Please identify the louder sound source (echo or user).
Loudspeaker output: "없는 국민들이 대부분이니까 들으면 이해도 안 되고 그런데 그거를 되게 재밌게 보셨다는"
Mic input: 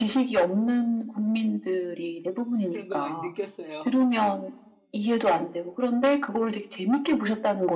echo